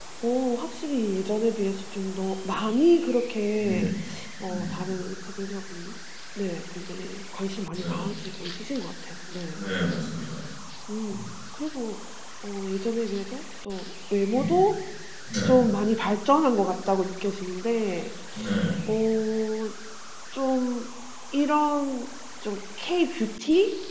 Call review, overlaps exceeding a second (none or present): none